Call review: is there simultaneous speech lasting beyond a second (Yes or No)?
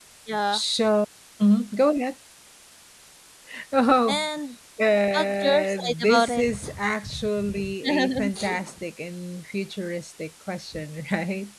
Yes